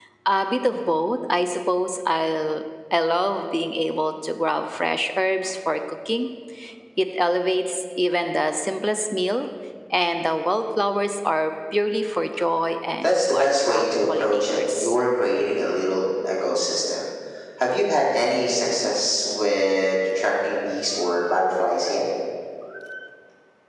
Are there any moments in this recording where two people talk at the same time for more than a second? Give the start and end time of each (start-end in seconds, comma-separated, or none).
13.0-15.0